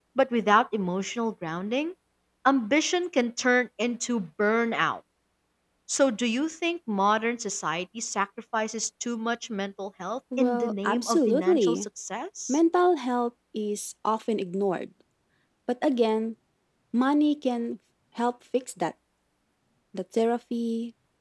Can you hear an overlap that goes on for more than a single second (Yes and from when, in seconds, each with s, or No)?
Yes, from 10.3 s